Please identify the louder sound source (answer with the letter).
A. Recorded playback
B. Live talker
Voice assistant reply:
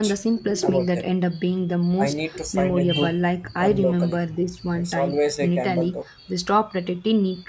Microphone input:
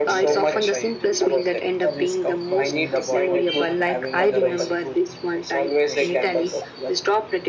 A